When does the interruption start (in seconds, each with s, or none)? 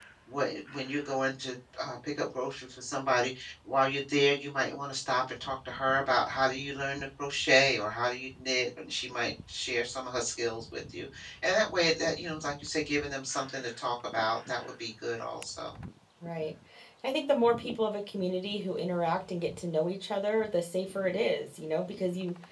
none